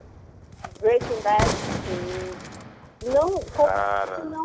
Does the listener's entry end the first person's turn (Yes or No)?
No